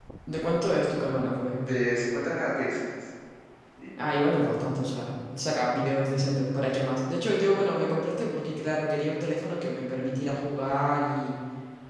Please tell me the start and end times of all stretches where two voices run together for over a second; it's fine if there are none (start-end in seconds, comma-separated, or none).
none